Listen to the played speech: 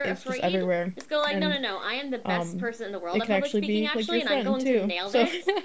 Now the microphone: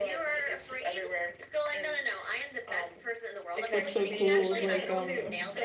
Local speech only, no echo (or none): what's so cool is like um